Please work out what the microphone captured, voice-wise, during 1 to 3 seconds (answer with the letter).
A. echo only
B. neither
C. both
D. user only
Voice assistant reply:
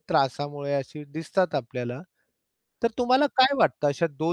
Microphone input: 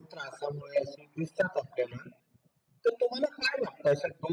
A